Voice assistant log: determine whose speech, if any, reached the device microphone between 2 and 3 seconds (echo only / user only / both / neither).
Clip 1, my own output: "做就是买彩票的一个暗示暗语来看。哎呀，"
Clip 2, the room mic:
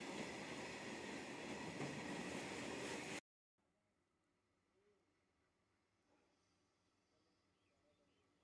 neither